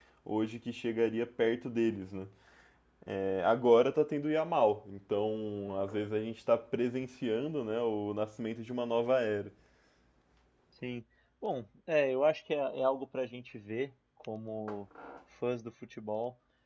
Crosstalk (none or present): none